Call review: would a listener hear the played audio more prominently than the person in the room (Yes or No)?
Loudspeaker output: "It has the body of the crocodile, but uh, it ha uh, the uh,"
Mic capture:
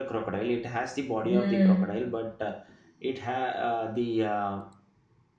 No